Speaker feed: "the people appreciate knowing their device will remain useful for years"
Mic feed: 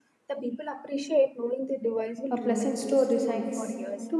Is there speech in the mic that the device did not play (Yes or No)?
Yes